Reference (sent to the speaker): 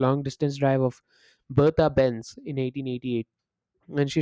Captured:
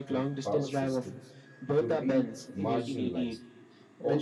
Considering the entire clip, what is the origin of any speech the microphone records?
both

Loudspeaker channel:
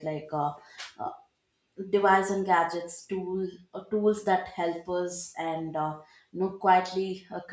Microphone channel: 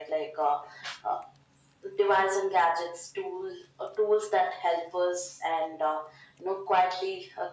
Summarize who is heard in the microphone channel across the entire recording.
echo only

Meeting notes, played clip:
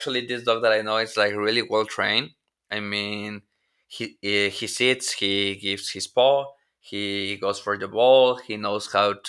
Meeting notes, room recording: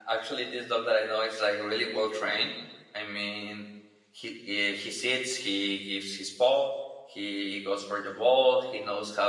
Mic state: echo only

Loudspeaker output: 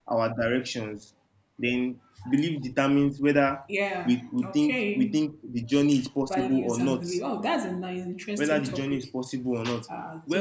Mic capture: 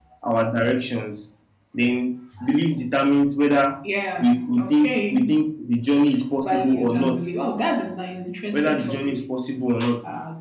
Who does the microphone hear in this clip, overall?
echo only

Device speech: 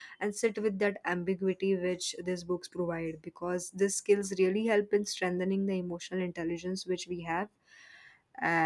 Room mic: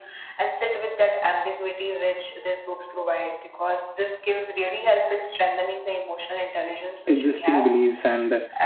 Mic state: both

